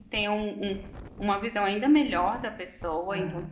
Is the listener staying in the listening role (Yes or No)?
Yes